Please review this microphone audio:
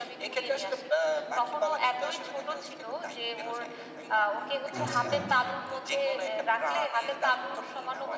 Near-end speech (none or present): present